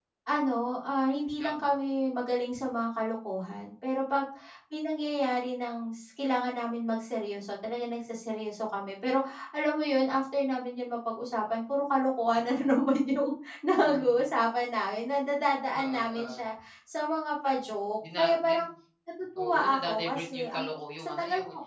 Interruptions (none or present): present